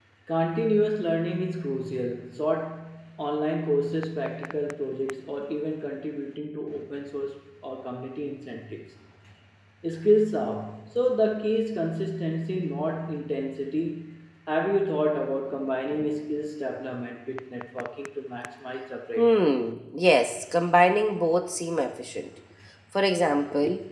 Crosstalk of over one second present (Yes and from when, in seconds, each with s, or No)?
No